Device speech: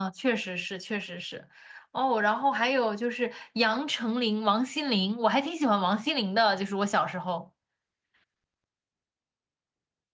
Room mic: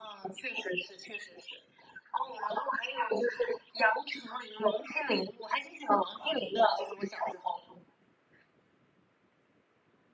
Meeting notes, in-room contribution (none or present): none